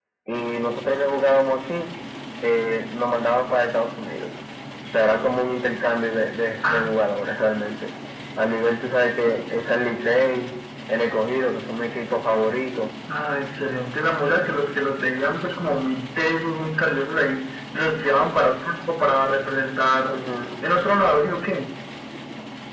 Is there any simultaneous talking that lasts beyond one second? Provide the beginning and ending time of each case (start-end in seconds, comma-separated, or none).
none